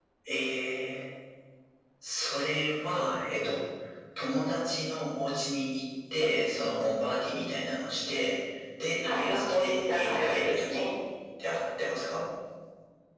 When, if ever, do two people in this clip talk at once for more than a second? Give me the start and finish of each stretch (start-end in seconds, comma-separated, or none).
9.1-10.8